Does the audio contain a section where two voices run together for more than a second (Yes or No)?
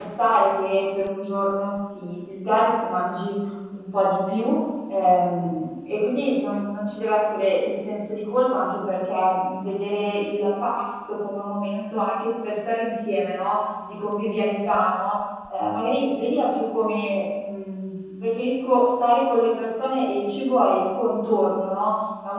No